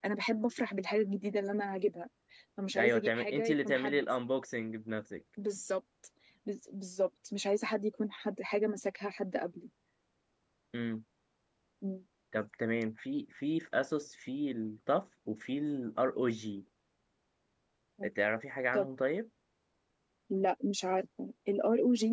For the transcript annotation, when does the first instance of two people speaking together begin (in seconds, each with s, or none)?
2.8 s